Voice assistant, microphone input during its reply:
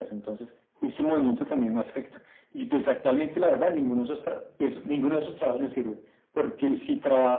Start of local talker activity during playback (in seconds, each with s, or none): none